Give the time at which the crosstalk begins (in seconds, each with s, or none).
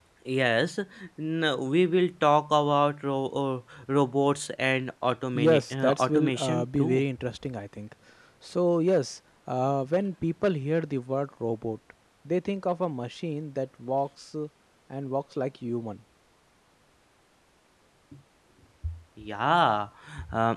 5.3 s